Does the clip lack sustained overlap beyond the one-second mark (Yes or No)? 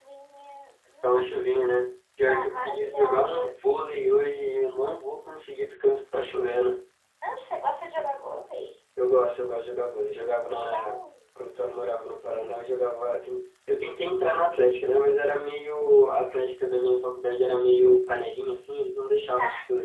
No